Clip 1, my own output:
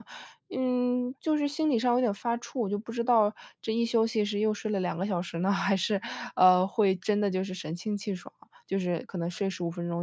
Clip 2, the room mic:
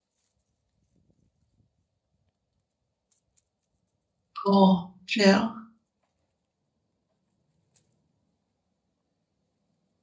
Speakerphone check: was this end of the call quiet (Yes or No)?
No